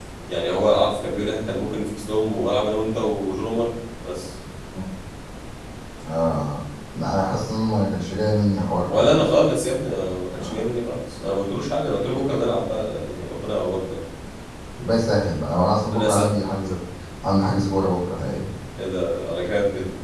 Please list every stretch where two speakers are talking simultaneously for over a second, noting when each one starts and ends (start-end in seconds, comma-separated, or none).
none